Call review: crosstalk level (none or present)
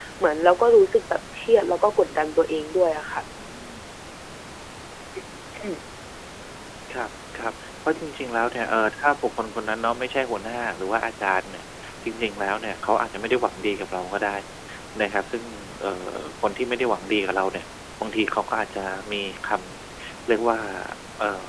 none